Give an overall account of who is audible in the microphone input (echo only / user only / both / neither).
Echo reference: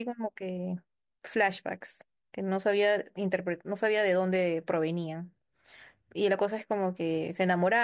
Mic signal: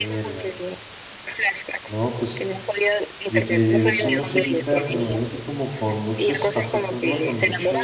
both